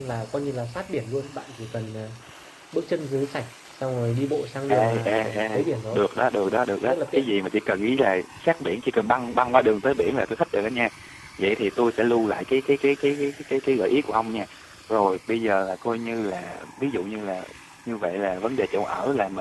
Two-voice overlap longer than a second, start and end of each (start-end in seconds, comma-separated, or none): 4.7-6.0